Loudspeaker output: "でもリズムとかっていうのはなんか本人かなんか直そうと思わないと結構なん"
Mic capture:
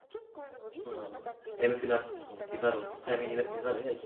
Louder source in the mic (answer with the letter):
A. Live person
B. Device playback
A